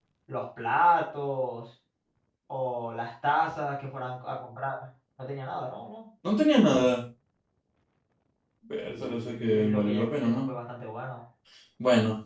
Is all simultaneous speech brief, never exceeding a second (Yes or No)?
No